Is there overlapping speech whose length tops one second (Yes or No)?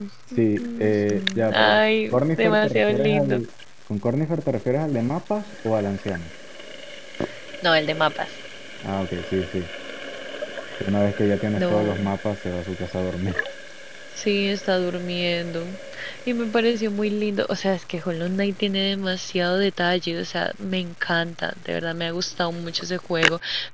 Yes